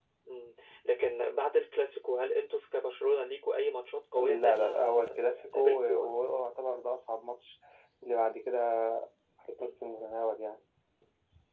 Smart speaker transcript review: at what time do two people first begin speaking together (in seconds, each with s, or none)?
4.2 s